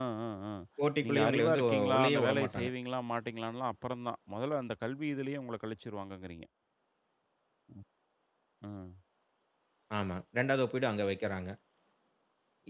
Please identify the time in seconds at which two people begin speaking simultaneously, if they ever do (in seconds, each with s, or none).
1.0 s